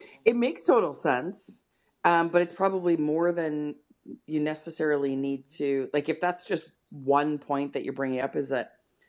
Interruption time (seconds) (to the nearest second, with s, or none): none